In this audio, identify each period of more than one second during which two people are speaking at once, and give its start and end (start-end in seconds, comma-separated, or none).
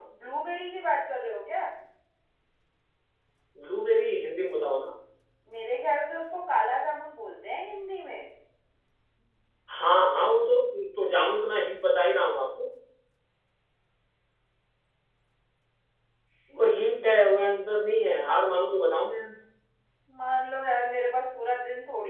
none